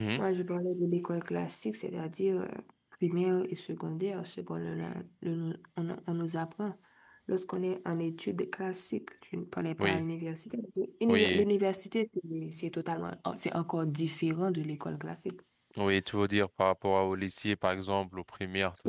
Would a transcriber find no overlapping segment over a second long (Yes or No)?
Yes